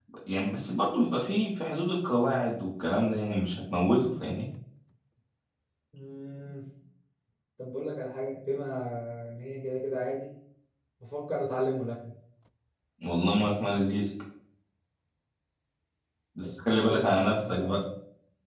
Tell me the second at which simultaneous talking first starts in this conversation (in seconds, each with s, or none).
16.4 s